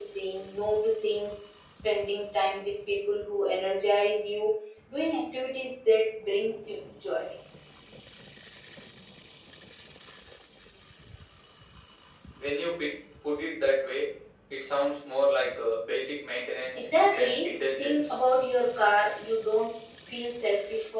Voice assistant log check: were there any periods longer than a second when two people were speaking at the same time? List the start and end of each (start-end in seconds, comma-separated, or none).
16.7-18.1